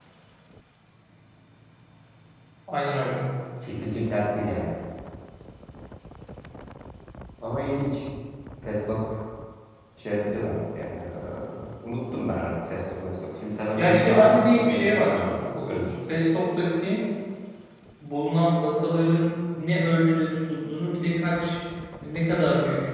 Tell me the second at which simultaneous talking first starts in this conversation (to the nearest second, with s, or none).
14 s